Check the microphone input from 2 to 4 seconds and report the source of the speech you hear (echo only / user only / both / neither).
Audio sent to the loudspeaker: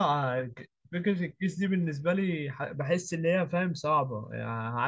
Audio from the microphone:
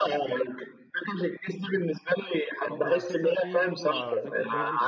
both